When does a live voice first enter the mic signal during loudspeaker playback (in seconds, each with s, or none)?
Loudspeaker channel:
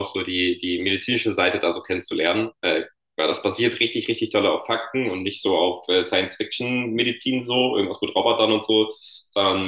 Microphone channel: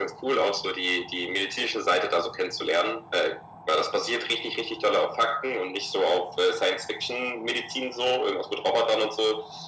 none